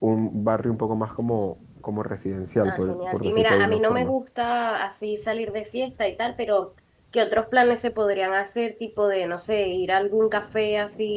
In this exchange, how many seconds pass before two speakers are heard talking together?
2.6 s

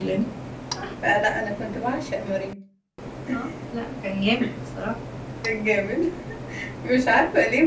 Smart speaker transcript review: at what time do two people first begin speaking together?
none

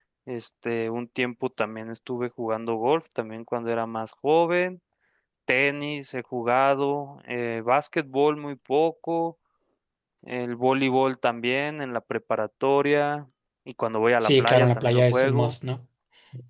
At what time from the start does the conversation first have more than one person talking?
14.2 s

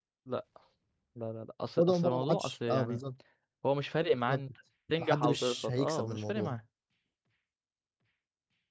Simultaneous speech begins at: 1.8 s

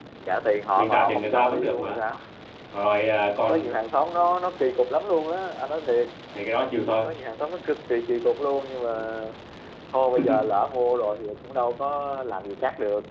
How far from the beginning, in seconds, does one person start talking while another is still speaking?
0.8 s

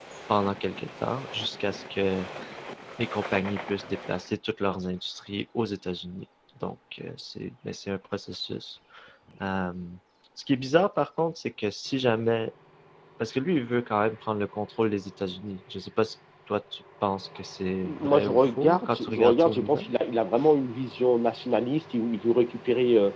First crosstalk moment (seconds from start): 17.8 s

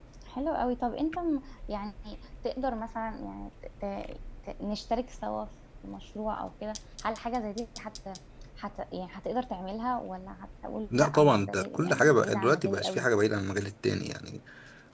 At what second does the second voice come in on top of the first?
10.9 s

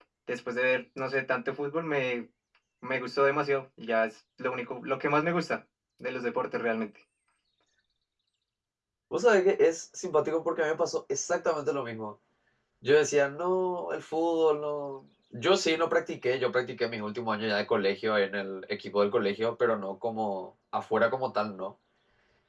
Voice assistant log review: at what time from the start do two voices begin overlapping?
none

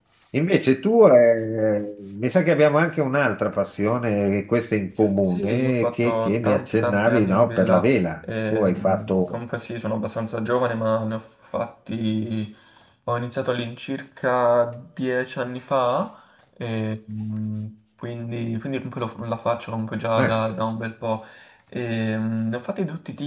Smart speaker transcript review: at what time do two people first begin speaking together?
5.3 s

